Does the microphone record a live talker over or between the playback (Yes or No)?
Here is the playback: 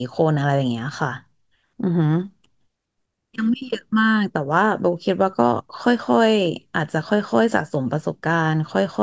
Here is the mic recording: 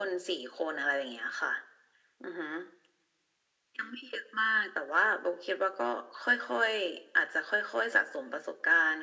No